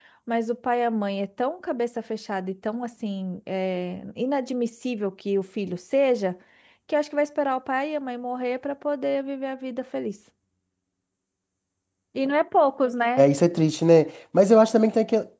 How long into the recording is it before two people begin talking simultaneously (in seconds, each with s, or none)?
none